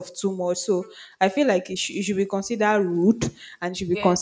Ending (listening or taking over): listening